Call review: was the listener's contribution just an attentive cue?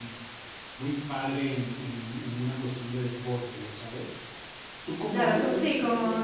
No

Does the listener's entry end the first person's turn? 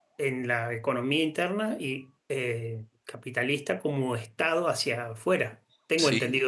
Yes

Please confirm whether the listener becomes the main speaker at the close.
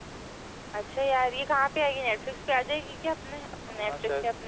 Yes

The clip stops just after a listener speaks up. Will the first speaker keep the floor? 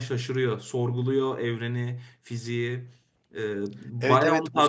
No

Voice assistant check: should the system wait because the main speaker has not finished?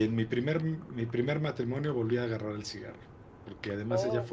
Yes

